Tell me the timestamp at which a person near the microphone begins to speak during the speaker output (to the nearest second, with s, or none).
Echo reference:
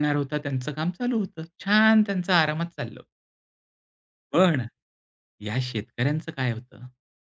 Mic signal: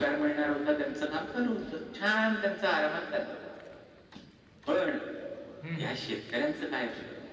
6 s